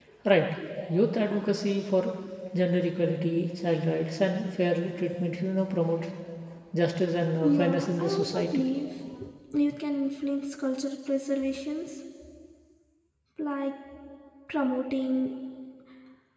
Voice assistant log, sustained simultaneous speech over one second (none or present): present